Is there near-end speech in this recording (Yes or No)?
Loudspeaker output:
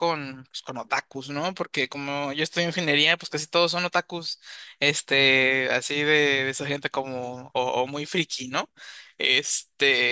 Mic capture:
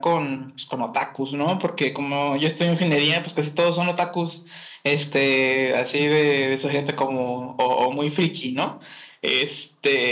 No